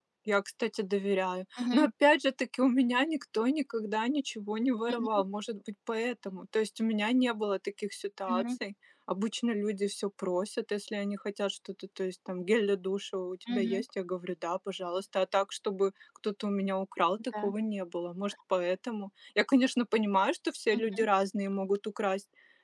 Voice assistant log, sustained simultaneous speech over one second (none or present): none